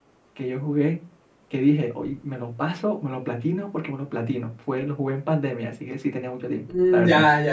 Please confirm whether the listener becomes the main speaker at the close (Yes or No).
Yes